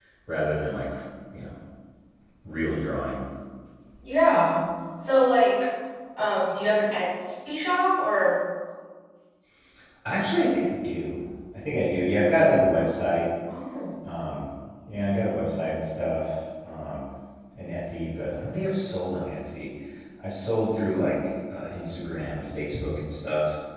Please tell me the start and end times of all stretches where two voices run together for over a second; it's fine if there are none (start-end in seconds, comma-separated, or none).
none